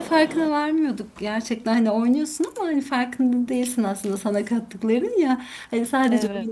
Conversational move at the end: listening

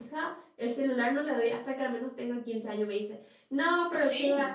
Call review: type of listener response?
listening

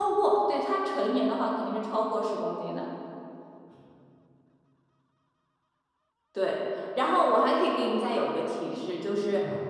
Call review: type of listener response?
listening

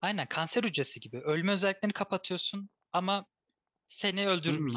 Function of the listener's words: taking over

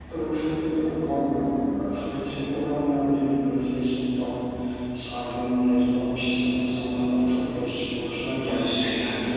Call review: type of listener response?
taking over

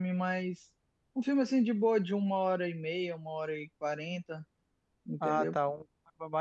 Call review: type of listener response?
taking over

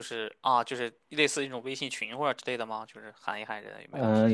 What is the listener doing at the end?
taking over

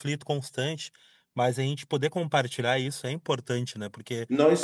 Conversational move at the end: taking over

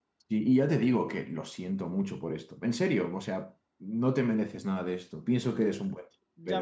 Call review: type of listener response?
taking over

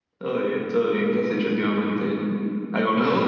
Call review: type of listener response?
taking over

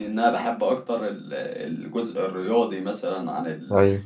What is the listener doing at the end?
listening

